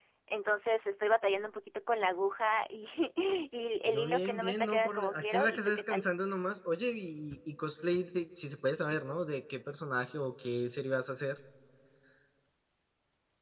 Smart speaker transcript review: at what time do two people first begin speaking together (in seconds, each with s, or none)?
3.9 s